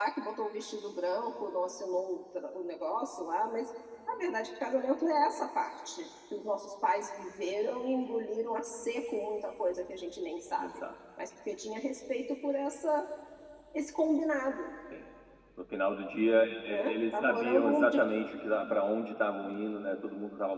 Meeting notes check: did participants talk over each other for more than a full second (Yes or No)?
Yes